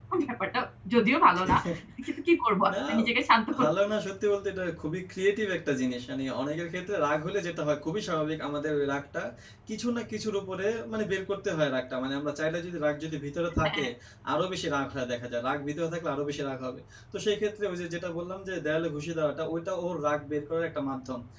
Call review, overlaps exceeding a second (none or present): none